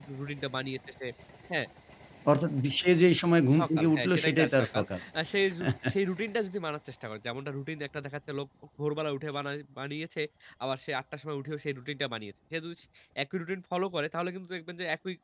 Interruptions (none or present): present